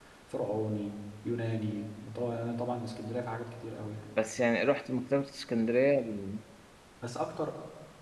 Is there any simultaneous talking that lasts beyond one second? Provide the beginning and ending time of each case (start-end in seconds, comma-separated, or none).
none